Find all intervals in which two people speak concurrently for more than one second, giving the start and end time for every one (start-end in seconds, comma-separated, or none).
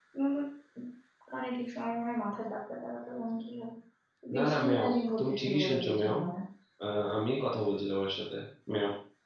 4.4-6.2